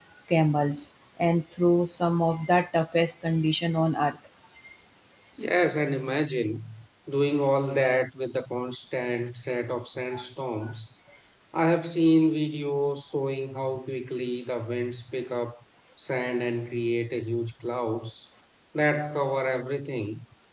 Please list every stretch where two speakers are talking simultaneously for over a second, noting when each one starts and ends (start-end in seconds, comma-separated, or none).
none